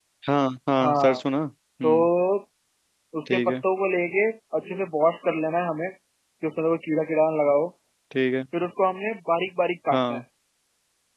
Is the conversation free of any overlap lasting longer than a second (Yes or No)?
Yes